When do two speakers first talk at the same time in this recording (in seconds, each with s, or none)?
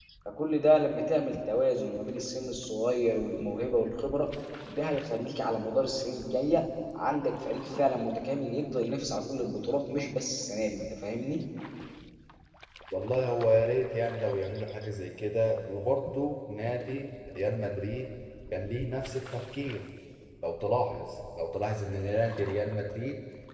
none